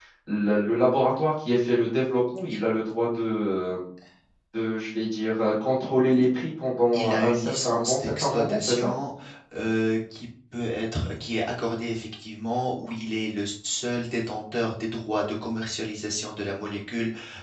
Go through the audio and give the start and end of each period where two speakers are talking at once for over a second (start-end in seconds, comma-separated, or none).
6.9-8.9